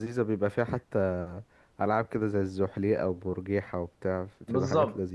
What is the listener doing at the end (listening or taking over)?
taking over